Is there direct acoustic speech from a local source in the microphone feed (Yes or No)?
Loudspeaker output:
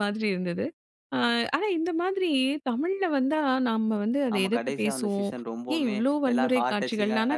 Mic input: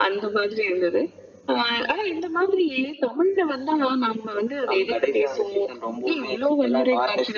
No